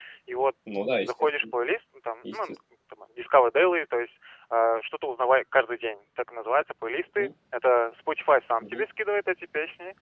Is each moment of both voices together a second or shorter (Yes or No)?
Yes